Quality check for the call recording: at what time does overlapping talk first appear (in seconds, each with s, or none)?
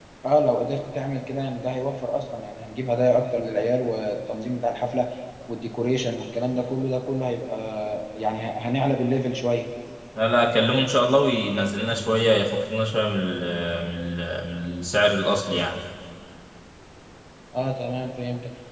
none